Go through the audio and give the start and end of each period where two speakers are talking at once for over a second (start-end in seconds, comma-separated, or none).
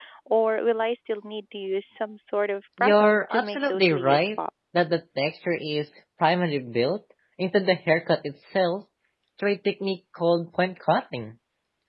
2.8-4.4